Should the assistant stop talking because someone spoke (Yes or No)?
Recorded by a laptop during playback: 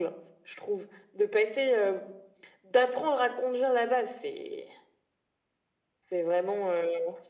No